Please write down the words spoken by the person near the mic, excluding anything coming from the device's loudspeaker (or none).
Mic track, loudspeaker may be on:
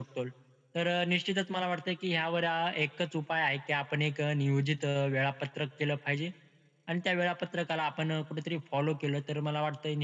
none